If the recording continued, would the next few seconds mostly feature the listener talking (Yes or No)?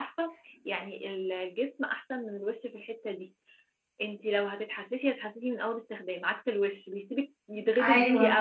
Yes